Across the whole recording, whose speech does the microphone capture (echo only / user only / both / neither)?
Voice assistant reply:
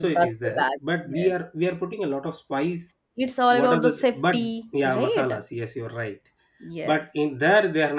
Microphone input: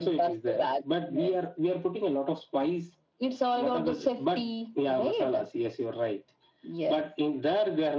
echo only